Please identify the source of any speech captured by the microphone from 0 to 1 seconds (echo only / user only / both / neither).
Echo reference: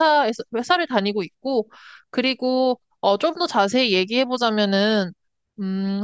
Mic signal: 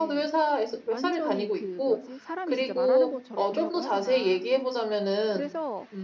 both